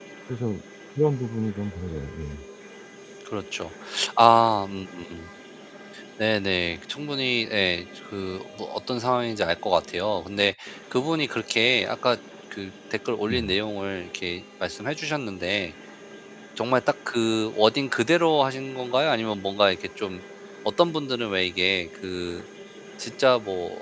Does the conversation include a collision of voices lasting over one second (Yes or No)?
No